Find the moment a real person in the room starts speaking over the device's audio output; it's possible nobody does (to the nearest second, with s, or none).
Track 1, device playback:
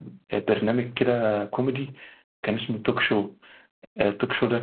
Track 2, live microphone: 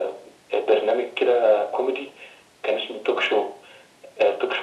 none